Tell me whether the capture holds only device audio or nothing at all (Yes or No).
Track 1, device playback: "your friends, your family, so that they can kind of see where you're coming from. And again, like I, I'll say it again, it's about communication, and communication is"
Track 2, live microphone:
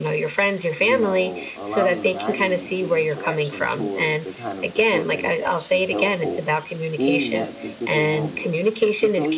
No